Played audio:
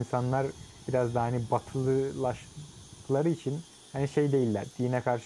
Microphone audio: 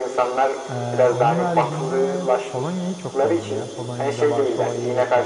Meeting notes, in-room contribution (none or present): present